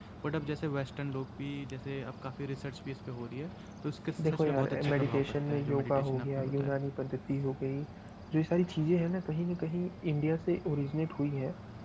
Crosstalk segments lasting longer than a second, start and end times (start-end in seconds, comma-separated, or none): 4.2-6.8